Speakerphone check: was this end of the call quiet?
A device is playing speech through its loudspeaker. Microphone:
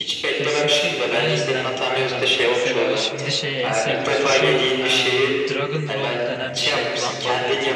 No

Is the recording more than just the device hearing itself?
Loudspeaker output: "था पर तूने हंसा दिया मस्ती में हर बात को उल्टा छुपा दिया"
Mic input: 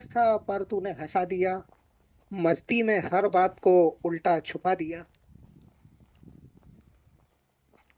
No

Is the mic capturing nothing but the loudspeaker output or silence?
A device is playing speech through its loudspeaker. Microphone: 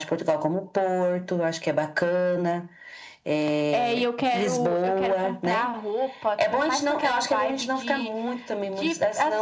Yes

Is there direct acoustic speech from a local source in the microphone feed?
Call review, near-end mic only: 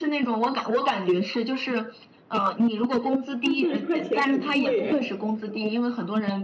Yes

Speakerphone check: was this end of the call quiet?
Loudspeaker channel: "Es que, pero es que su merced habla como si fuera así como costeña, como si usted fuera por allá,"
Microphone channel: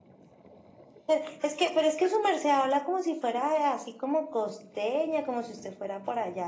Yes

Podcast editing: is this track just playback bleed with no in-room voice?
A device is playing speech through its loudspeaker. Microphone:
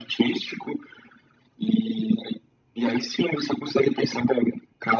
Yes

